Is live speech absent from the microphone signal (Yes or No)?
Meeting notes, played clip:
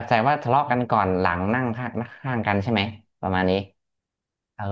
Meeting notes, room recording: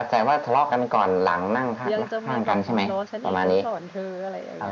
No